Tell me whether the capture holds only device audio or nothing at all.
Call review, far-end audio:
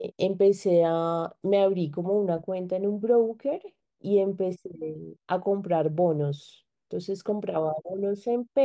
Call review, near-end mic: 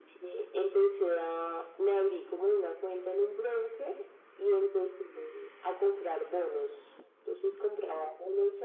Yes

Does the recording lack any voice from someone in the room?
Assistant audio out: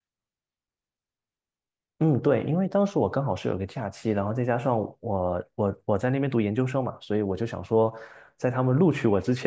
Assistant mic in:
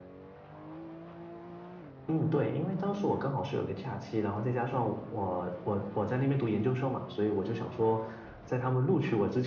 Yes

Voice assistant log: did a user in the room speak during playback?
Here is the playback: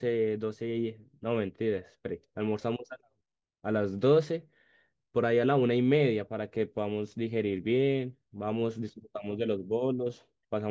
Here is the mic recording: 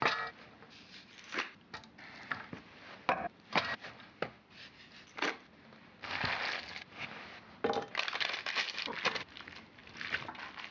No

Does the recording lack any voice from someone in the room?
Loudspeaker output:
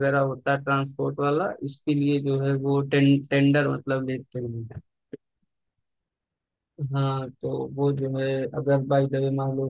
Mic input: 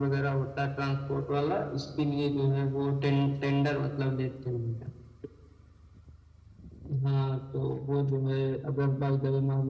Yes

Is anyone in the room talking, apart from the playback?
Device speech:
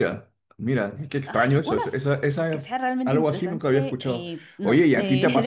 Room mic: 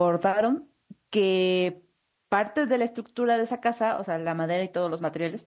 Yes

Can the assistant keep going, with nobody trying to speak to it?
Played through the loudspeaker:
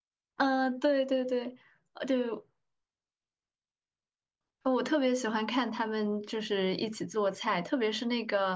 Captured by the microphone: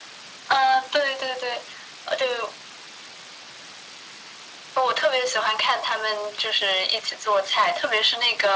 Yes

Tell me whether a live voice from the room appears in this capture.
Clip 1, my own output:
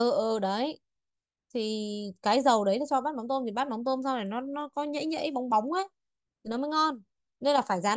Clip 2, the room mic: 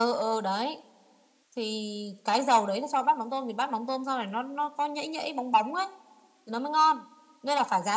No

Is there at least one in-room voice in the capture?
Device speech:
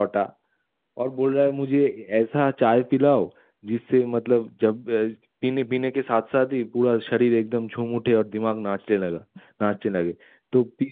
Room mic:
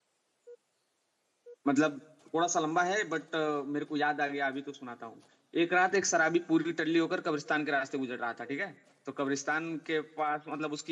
Yes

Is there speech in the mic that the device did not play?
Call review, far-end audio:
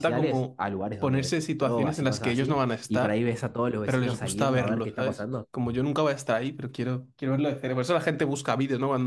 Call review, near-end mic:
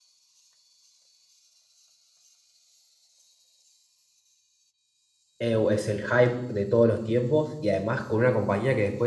Yes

